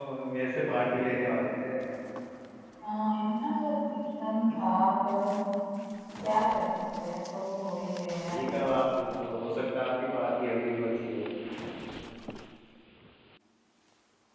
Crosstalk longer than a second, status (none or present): none